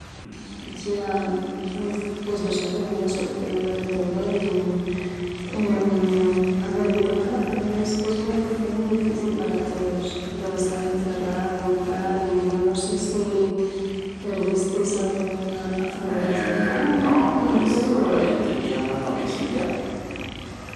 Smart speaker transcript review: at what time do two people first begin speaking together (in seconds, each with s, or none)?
16.1 s